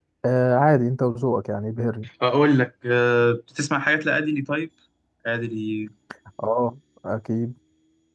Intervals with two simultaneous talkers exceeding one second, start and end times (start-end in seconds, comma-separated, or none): none